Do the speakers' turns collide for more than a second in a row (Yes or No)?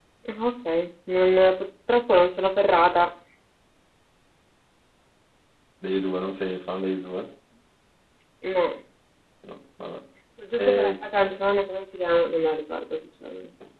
No